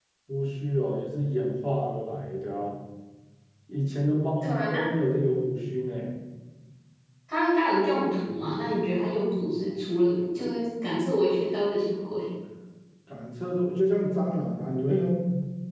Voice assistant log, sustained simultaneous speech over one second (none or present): none